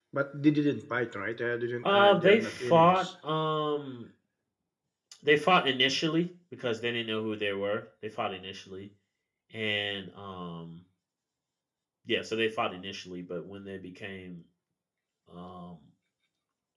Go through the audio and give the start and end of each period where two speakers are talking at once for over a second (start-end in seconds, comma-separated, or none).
1.8-3.1